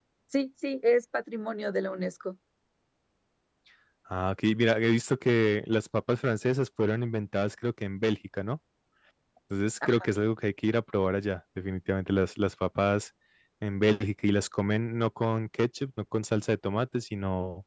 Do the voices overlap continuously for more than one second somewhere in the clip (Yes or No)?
No